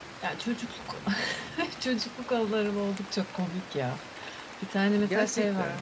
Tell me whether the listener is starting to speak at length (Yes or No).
No